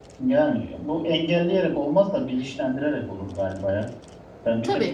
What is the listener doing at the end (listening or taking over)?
listening